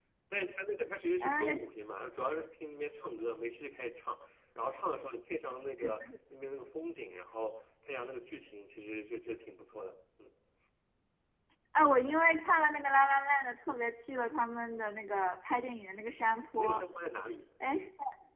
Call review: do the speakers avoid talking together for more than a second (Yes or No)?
Yes